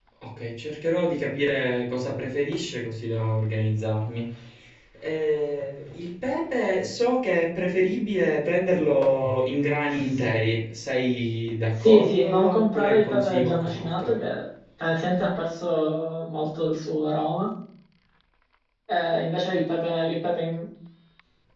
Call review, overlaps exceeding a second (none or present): present